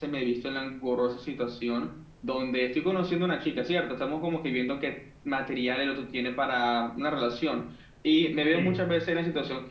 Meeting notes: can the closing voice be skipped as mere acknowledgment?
Yes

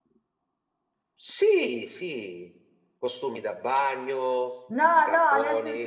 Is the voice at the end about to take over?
Yes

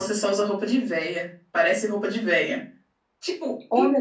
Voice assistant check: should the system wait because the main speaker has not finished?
Yes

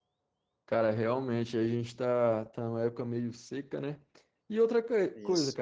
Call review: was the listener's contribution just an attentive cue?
Yes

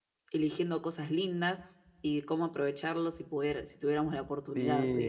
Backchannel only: No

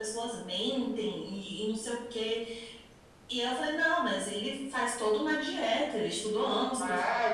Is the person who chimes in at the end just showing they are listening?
No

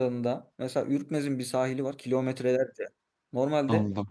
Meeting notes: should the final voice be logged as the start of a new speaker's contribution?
No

